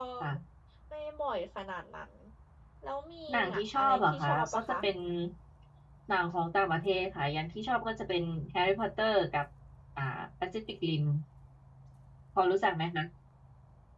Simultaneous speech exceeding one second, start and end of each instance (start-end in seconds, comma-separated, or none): 3.3-4.6